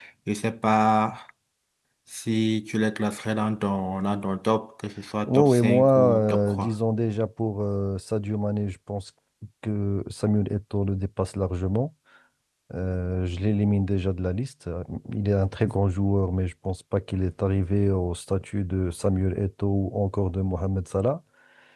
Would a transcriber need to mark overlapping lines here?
Yes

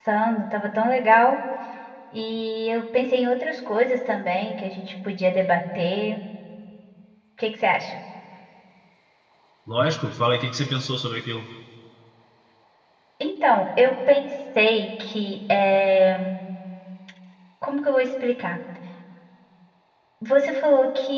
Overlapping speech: No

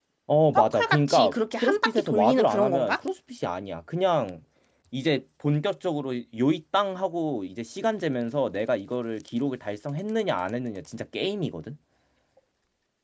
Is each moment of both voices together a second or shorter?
No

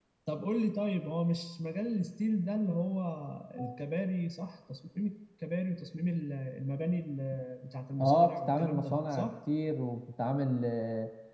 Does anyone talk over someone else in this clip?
Yes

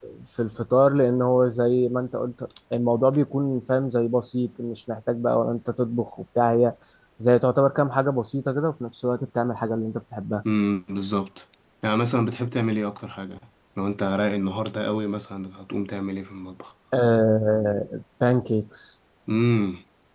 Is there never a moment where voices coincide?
Yes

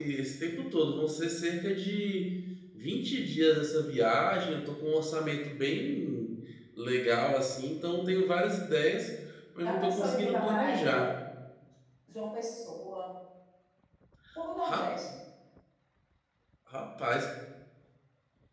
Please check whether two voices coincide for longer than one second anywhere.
Yes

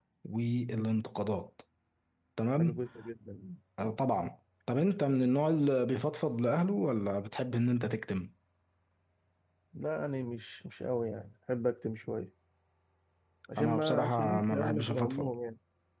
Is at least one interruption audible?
Yes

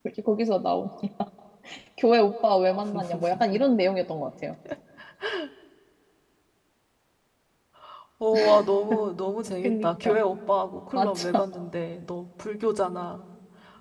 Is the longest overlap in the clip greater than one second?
No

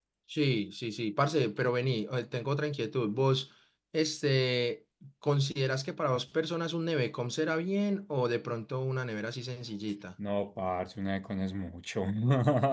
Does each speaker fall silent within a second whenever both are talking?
Yes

